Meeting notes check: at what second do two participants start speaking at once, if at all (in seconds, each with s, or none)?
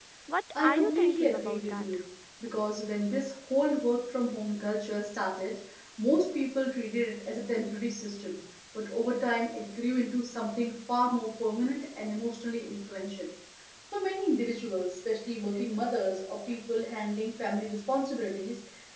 0.6 s